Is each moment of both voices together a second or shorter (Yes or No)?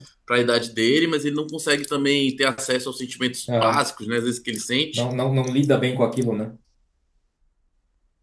Yes